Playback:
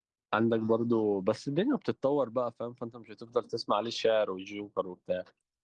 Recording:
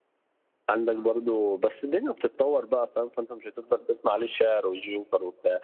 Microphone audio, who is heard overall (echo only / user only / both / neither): echo only